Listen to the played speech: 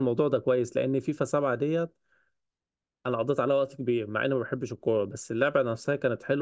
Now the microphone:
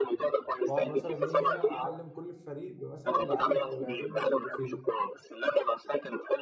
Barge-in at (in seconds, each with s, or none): 0.7 s